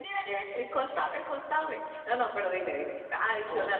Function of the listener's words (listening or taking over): listening